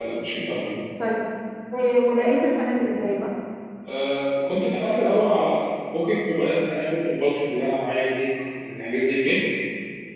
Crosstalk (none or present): none